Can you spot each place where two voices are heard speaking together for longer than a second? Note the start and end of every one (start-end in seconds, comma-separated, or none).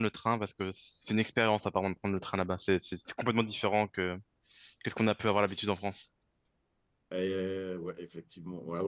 none